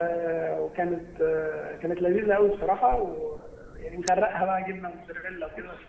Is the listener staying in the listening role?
No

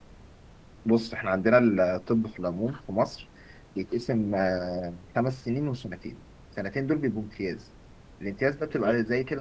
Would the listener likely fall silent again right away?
Yes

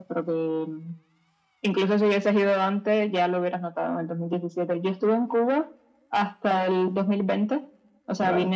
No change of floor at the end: Yes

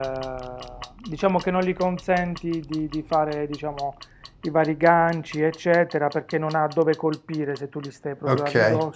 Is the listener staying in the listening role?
No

